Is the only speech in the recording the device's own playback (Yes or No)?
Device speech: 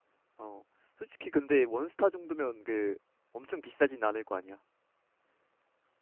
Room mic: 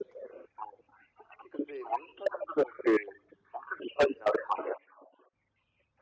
Yes